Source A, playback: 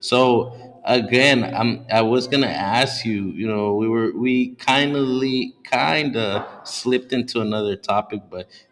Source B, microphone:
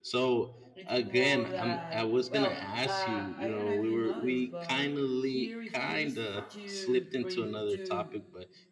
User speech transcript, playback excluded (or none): it's more that well uh, i don't know if you know this but he refused to bring to